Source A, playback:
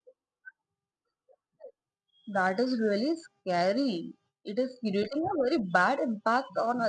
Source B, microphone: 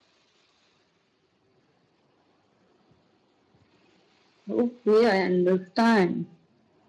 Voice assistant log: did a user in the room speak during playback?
Yes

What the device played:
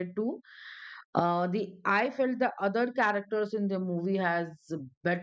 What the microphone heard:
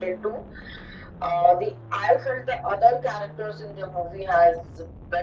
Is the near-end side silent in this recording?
Yes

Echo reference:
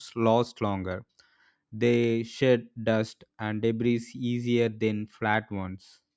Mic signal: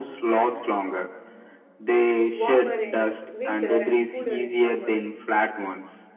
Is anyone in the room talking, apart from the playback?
Yes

